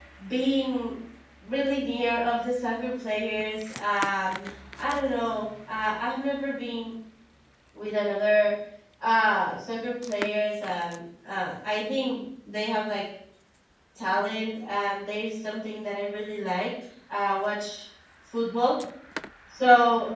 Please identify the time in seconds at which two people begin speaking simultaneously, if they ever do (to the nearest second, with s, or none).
none